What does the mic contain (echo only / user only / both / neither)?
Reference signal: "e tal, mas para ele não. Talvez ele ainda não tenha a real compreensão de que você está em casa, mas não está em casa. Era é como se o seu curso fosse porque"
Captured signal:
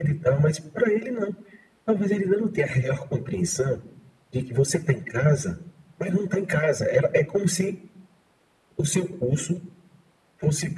echo only